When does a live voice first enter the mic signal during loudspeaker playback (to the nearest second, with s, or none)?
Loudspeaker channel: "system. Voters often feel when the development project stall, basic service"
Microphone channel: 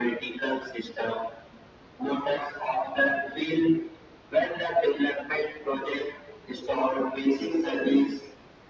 none